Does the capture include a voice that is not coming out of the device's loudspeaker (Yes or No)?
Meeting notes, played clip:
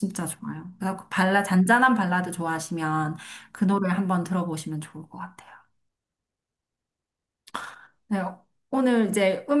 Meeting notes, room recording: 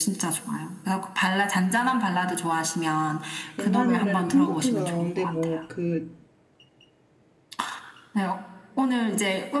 Yes